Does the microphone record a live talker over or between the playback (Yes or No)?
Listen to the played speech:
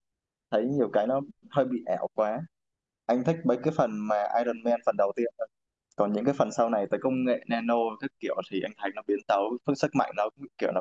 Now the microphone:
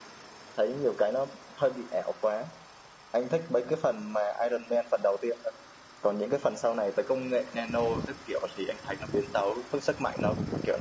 No